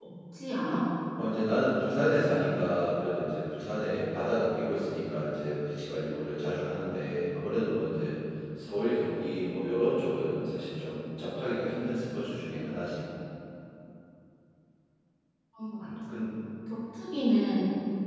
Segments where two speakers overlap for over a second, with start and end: none

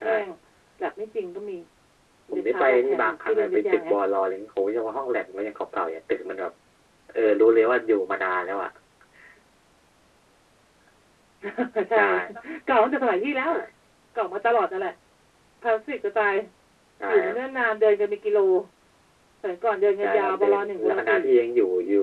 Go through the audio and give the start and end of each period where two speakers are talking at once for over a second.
2.3-3.9, 20.0-21.2

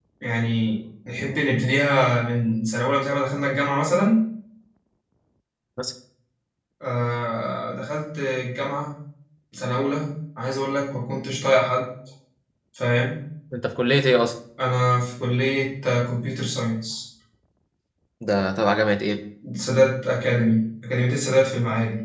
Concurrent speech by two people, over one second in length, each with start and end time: none

